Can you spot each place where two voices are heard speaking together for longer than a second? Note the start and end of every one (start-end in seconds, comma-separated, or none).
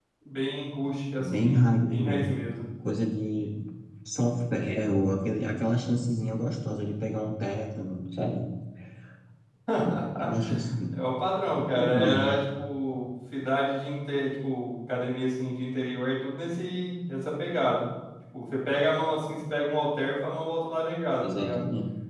1.2-2.4